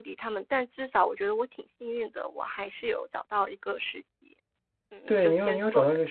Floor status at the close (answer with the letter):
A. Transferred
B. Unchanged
A